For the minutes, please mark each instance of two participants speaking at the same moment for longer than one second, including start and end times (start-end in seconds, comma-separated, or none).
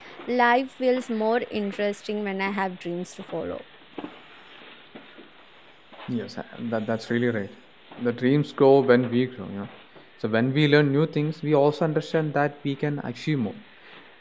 none